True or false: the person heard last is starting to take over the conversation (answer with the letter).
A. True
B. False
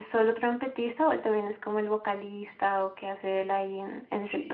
A